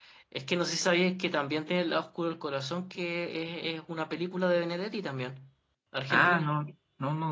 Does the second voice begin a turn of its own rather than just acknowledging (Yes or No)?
Yes